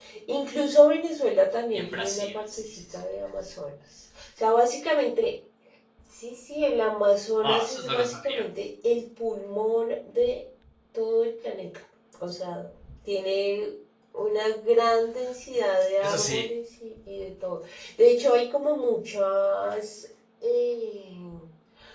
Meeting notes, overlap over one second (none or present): present